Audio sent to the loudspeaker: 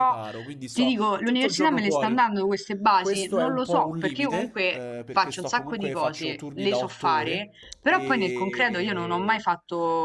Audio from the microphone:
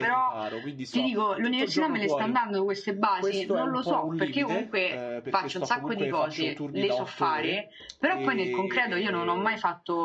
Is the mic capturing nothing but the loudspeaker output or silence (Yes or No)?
Yes